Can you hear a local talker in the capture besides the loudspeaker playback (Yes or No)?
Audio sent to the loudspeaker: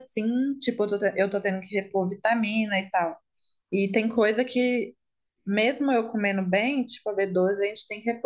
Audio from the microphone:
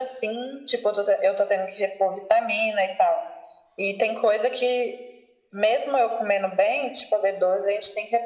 No